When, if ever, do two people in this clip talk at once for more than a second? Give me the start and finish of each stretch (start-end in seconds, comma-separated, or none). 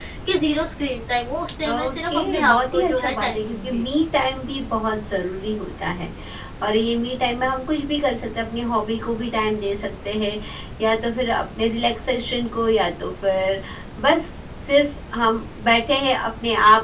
1.7-3.8